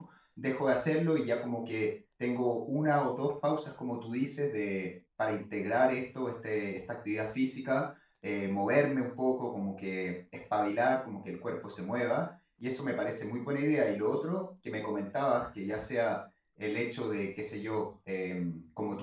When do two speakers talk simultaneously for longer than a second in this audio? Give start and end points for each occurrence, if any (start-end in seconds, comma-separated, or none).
none